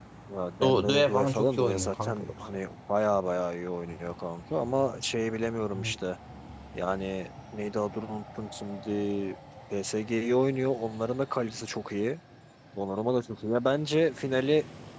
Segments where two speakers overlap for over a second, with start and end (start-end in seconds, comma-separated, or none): 0.6-2.6